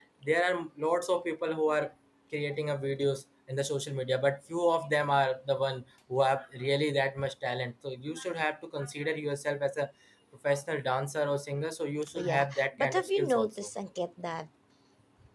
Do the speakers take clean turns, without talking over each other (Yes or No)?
No